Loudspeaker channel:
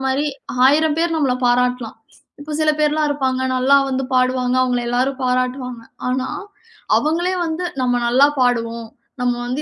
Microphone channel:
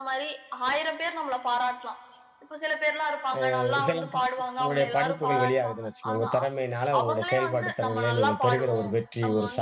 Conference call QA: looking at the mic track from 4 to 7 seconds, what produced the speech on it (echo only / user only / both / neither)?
both